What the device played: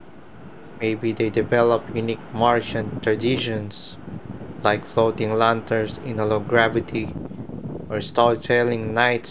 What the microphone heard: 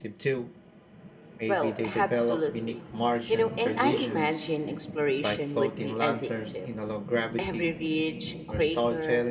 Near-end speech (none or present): present